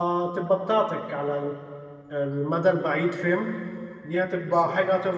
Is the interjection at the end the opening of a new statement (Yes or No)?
No